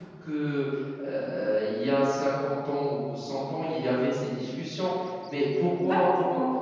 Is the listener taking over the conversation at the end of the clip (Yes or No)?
No